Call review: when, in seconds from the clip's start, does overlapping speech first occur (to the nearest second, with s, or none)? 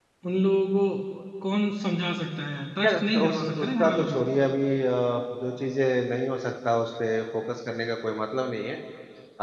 3 s